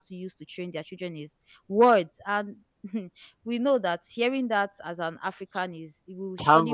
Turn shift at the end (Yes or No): Yes